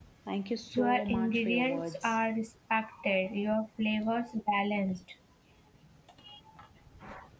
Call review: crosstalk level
present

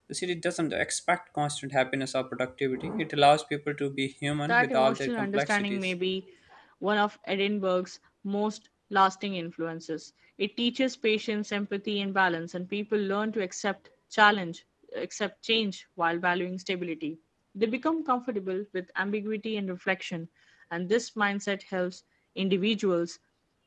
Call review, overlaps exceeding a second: present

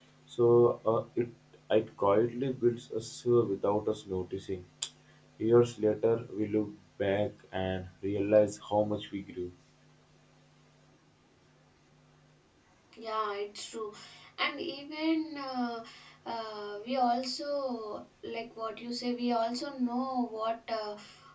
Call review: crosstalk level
none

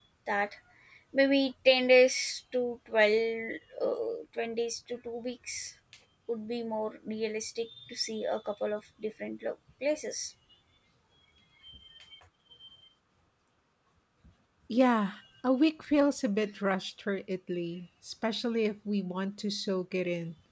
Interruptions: none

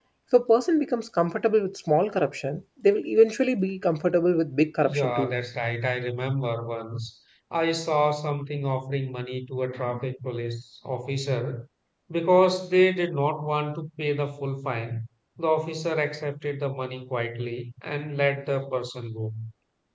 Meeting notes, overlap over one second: none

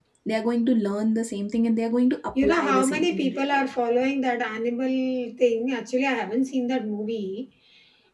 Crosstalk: present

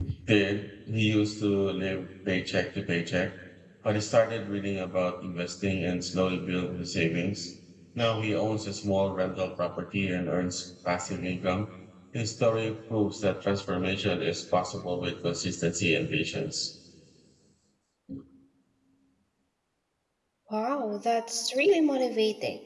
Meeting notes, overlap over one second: none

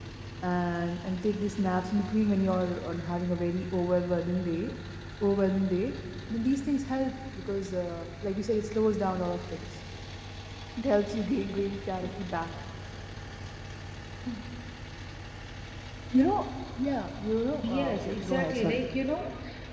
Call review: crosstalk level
present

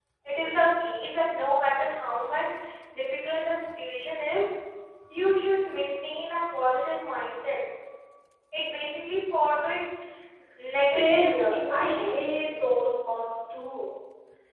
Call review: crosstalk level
present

